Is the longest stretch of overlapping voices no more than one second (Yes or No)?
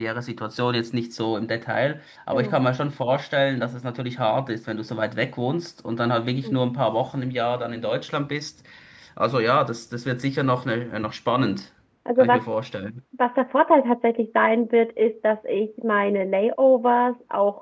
Yes